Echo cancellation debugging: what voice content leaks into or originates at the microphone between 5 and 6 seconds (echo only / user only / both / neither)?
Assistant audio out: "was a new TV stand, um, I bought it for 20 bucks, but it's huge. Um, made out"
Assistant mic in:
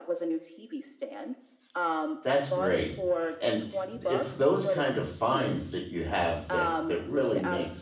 both